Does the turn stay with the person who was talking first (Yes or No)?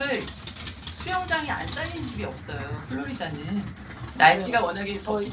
No